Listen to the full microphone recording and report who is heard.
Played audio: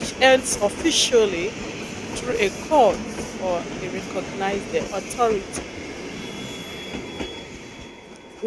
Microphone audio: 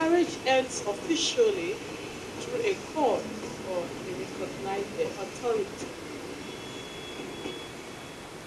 echo only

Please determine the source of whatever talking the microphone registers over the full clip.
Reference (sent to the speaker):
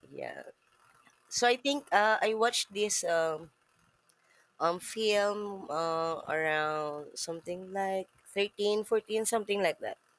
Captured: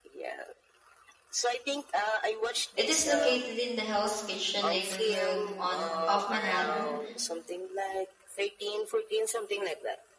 both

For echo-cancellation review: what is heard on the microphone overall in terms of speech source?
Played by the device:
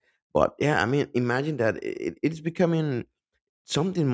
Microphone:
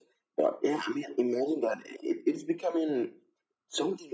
echo only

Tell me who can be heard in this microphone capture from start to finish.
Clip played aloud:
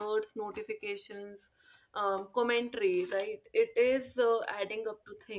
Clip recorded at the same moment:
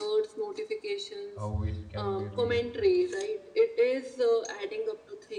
both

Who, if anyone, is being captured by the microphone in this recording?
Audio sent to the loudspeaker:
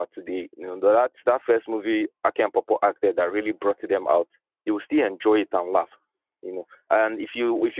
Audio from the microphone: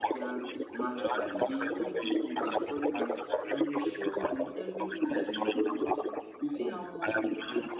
both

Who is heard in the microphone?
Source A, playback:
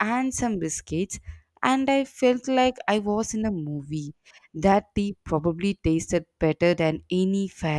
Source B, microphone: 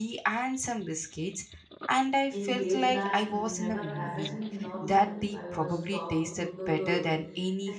both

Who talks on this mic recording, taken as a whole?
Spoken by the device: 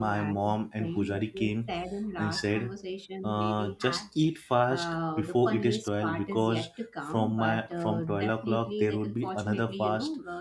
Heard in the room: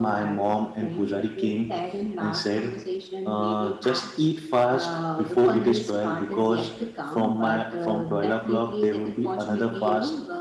echo only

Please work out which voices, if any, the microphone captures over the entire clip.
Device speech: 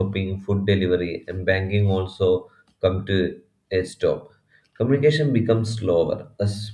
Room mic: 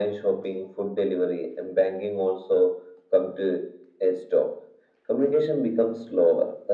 echo only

